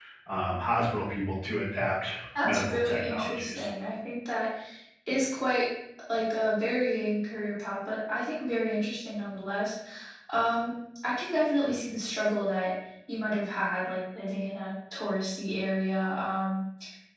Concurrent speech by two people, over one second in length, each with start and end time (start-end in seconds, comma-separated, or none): 2.4-3.7